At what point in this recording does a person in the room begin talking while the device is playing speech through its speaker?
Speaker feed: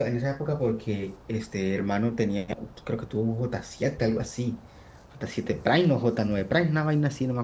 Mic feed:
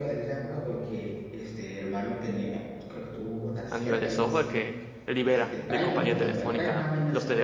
4 s

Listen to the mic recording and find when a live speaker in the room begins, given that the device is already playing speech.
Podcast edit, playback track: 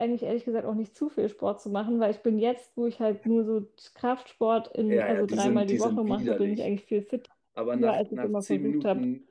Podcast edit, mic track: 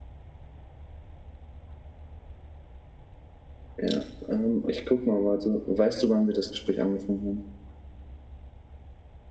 4 s

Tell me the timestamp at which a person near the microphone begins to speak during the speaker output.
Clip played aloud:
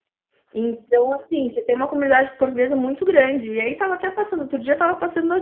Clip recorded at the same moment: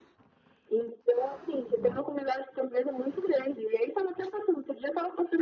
none

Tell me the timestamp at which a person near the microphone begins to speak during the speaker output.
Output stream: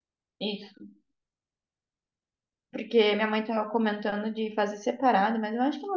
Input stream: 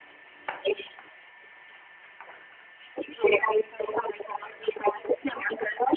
none

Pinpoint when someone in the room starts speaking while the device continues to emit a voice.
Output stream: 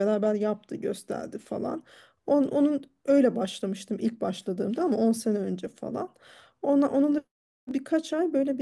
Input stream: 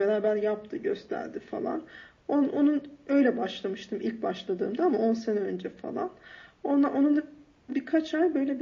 none

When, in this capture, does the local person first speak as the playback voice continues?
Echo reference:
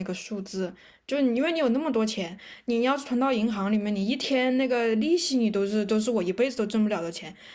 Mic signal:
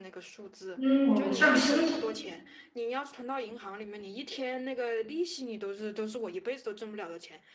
1 s

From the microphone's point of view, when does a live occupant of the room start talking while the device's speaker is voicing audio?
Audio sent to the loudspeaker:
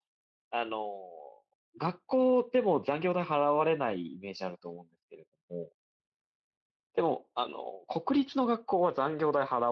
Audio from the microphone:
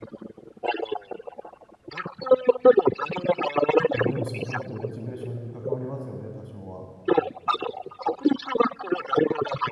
4 s

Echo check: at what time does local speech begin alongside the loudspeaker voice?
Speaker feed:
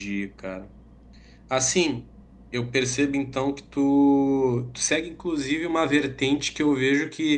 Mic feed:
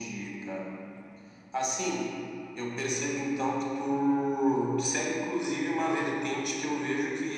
none

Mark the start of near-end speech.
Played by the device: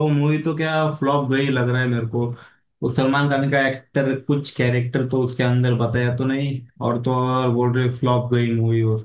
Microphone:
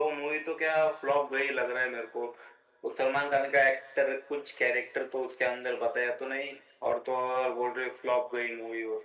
none

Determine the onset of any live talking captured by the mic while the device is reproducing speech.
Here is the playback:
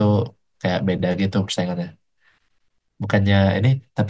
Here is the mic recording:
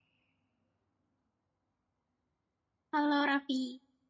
3 s

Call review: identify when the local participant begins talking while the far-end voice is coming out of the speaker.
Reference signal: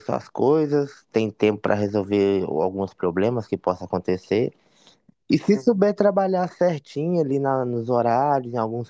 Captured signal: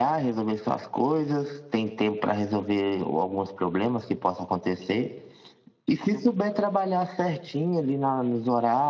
none

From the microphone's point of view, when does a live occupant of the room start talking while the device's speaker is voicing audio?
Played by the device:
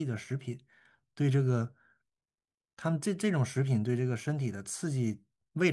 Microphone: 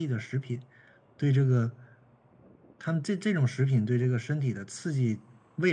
none

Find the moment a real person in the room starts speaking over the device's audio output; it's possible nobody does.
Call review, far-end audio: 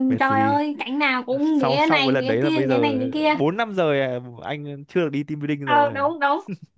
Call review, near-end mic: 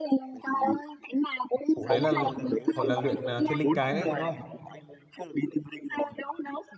2 s

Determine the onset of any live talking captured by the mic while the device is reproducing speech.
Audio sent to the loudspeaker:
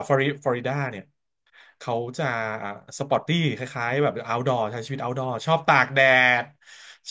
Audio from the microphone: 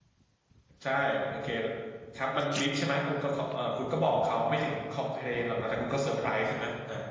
1 s

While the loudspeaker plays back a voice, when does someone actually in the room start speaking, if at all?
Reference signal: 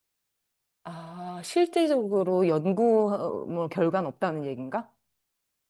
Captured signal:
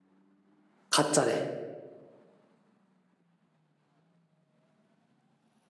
1 s

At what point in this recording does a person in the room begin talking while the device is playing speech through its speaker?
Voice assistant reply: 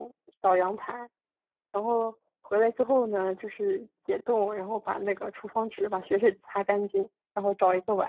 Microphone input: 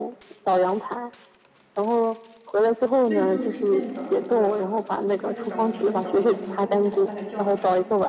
3 s

